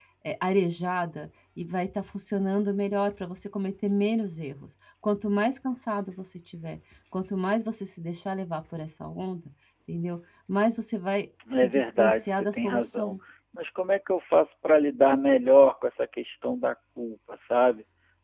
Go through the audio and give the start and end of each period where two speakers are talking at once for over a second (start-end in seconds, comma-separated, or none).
11.6-13.1